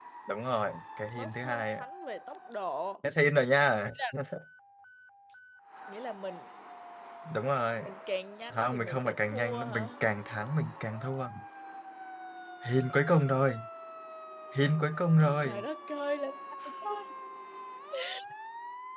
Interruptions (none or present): present